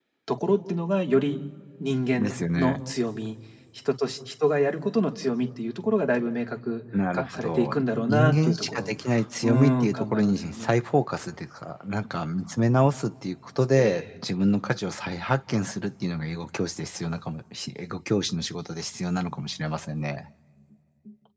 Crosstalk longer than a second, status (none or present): present